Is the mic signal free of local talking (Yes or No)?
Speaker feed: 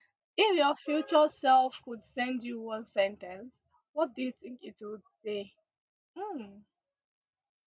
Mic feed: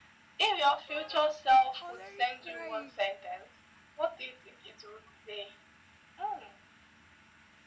No